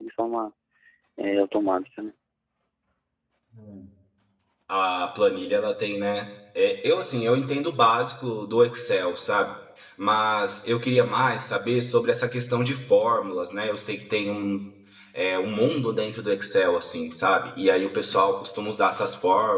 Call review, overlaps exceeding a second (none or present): none